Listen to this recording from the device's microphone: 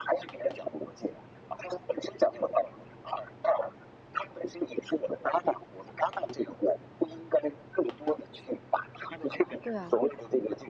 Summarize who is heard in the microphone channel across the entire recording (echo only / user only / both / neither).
both